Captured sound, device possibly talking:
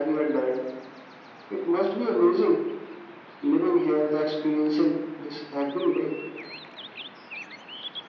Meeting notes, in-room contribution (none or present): none